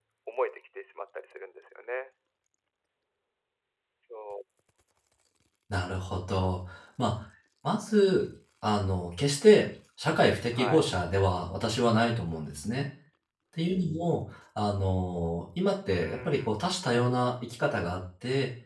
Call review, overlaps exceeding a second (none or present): none